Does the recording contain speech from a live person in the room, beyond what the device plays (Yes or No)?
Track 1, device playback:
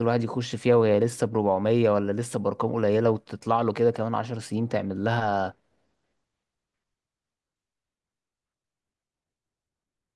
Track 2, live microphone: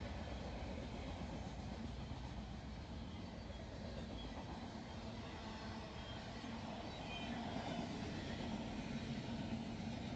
No